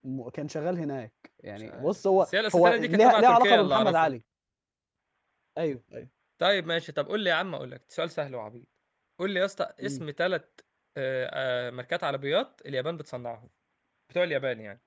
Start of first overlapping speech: 1.6 s

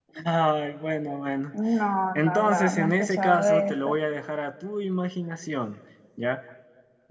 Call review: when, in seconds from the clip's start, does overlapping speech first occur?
2.2 s

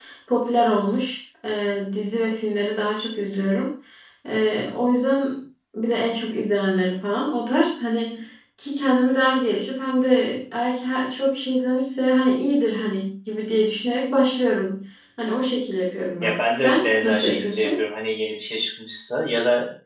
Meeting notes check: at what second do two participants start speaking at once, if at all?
16.2 s

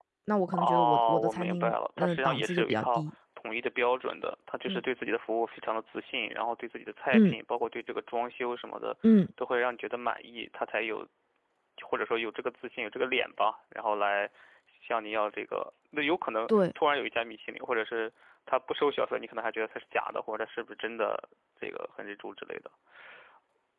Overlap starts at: 0.5 s

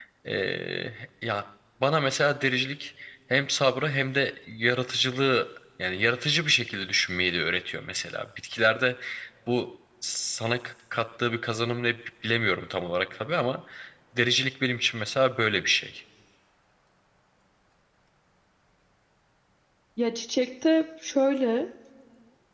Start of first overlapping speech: none

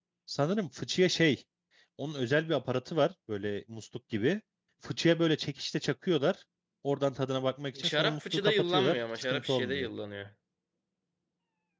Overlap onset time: 7.8 s

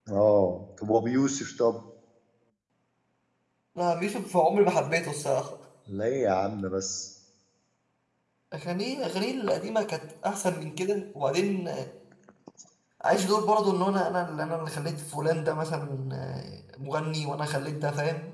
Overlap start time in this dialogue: none

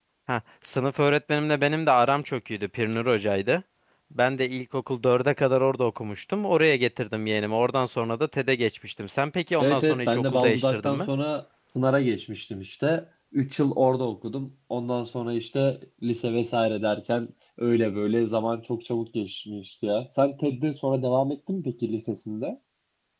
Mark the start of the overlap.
9.6 s

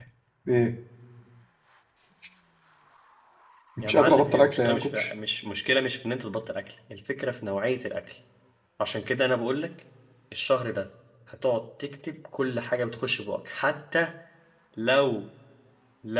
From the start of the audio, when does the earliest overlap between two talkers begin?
3.8 s

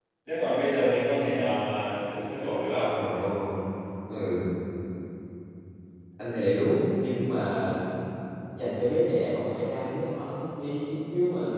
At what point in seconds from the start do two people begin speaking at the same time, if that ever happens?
none

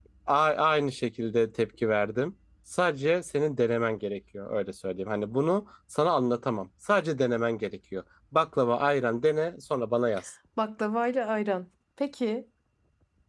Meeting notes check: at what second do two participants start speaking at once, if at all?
none

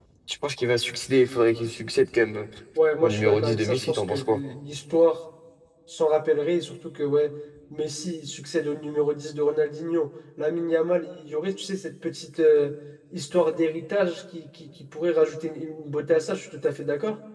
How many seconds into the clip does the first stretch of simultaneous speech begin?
3.0 s

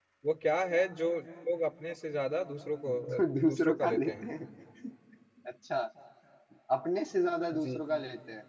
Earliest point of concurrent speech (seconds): 2.9 s

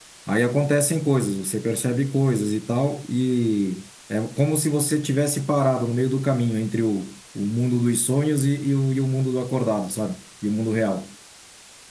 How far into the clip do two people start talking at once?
none

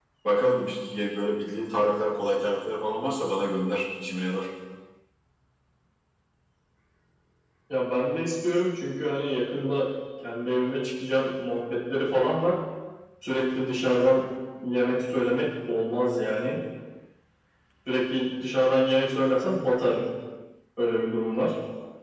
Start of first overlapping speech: none

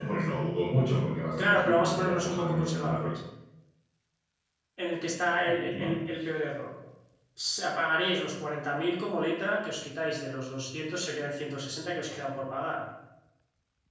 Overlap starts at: 1.4 s

